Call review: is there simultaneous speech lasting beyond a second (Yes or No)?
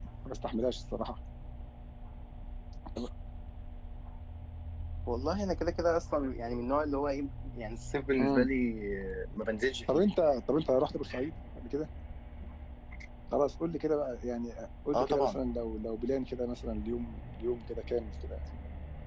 No